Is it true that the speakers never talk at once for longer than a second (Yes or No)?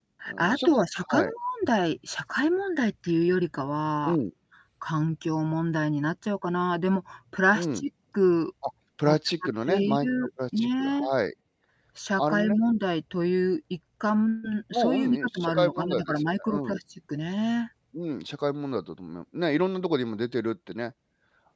No